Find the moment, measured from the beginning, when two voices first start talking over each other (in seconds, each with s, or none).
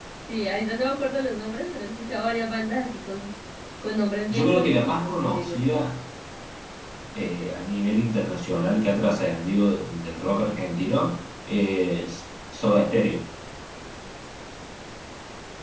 4.3 s